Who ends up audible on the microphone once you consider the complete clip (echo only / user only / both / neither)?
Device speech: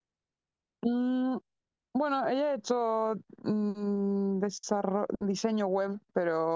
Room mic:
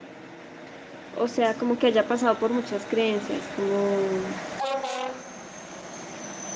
user only